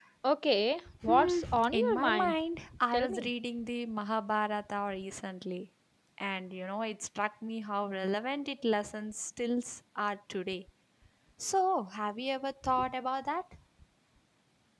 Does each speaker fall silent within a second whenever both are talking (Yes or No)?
No